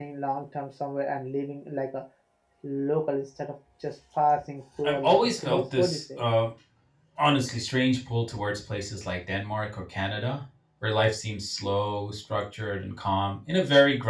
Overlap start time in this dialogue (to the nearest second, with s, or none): 5 s